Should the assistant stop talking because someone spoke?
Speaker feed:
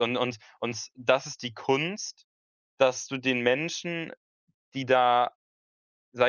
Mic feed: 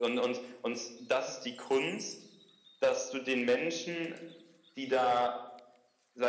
No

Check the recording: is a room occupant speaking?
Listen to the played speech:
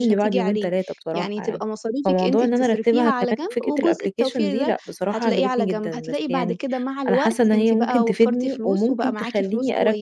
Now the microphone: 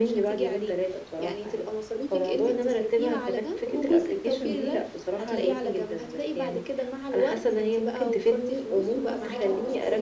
Yes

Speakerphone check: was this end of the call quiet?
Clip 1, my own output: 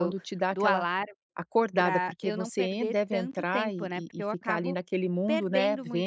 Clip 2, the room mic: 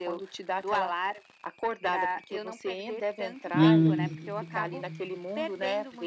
No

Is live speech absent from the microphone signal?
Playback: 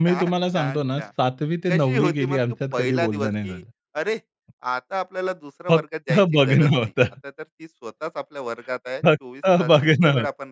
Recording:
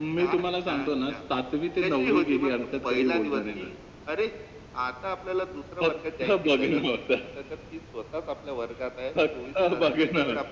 Yes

